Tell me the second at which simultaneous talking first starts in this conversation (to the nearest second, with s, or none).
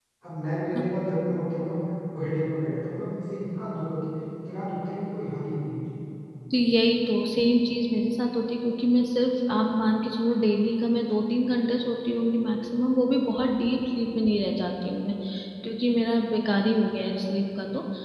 none